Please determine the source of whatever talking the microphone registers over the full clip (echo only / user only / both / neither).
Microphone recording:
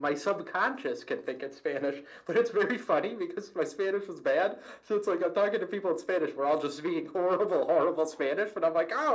echo only